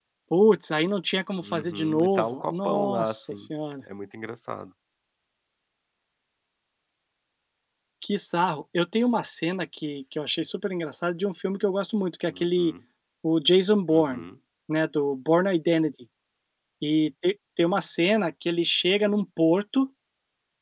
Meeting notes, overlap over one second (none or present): present